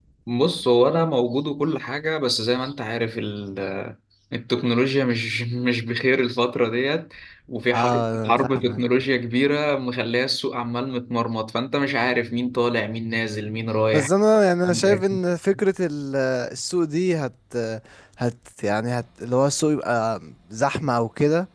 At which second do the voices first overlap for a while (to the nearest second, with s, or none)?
8 s